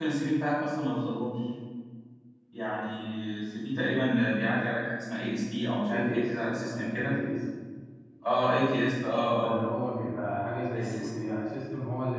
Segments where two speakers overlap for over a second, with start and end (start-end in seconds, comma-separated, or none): 5.9-7.2